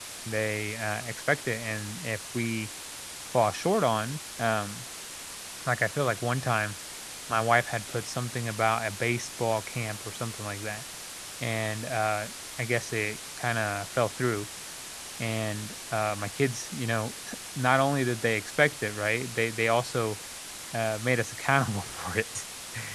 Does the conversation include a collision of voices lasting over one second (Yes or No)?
No